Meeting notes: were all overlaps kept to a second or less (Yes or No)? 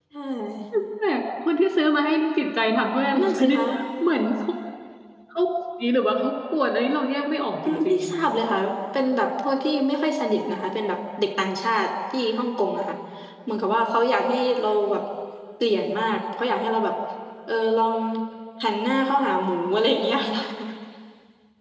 Yes